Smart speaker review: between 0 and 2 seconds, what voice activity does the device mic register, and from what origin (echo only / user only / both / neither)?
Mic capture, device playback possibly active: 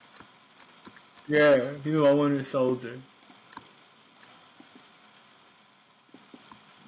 user only